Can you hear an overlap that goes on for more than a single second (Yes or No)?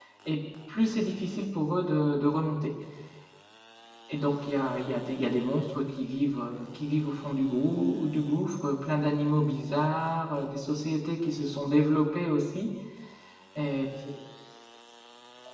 No